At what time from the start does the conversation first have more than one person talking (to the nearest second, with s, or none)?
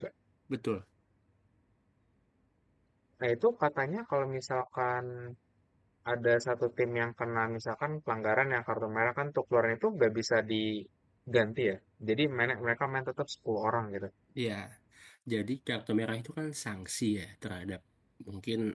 none